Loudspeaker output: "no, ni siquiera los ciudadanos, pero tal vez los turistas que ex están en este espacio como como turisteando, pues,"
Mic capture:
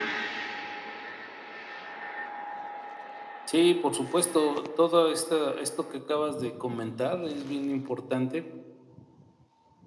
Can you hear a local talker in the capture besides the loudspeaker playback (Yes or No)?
Yes